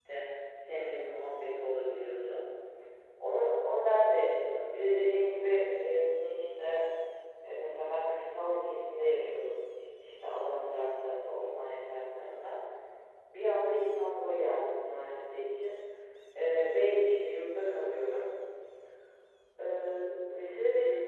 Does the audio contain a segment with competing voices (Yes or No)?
No